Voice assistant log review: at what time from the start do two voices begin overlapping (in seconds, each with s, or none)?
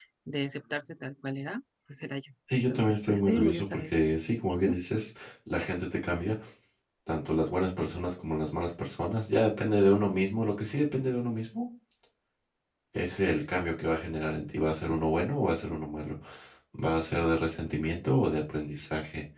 2.6 s